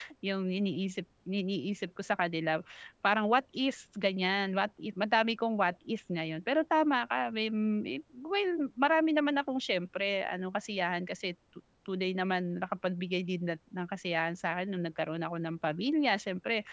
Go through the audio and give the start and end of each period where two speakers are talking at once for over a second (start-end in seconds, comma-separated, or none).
none